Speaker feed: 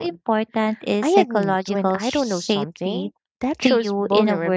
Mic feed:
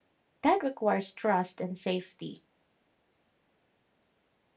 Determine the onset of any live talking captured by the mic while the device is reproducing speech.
0.4 s

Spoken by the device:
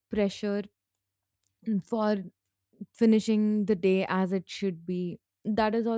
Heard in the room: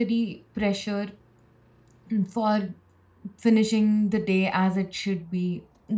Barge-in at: none

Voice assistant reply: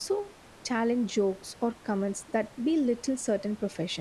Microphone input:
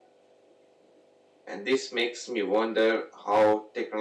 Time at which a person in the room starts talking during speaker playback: 1.5 s

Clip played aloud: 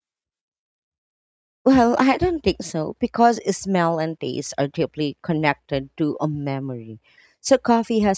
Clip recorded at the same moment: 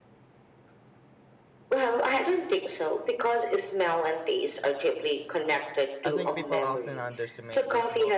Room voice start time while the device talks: 6.0 s

